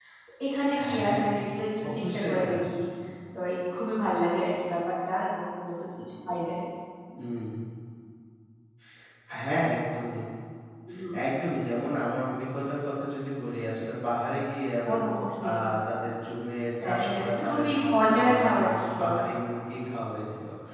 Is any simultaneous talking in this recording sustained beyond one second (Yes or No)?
Yes